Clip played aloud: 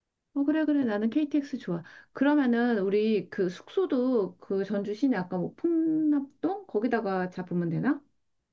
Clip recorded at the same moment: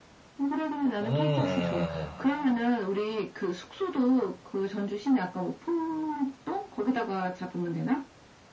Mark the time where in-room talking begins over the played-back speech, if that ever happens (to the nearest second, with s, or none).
1 s